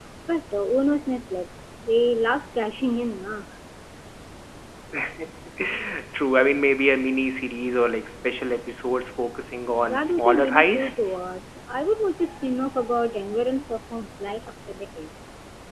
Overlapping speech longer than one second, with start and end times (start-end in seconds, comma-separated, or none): 9.9-11.1